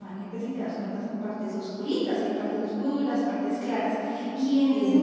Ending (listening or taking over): listening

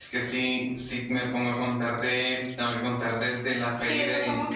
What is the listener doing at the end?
taking over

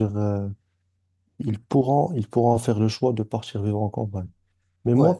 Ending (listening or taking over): listening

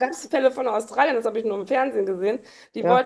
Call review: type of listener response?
listening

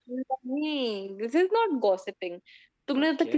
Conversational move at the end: listening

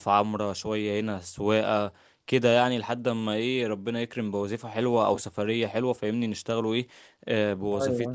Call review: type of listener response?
listening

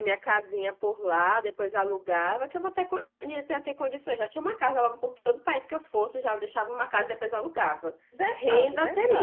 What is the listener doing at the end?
taking over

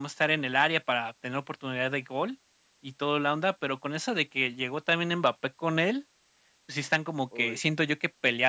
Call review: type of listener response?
listening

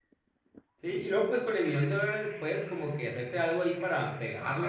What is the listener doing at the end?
taking over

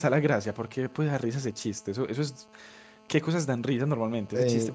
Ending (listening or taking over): taking over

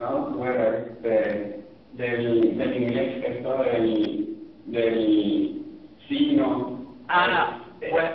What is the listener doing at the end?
taking over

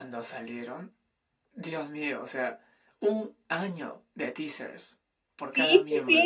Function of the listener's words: taking over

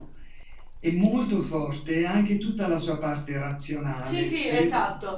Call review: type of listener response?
taking over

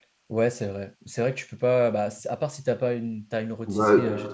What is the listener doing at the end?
taking over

